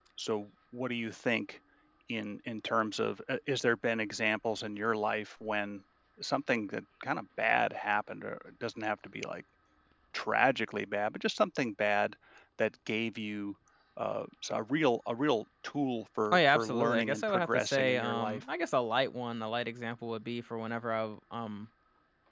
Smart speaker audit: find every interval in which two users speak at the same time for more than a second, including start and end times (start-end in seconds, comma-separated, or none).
16.3-18.4